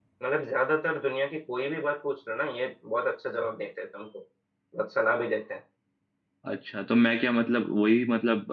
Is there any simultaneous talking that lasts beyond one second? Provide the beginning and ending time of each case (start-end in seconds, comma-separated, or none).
none